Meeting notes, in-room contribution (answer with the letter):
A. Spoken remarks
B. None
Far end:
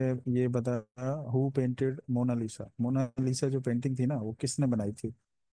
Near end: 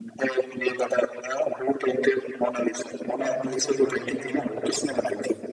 A